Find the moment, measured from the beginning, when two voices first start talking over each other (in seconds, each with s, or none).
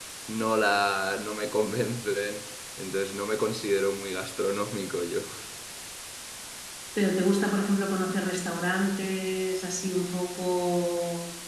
none